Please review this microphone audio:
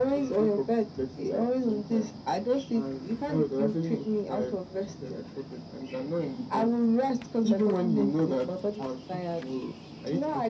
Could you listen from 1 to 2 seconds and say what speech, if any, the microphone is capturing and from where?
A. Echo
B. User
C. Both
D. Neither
A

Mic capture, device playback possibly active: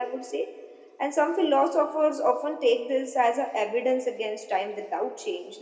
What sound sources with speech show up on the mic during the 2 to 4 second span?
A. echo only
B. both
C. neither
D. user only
A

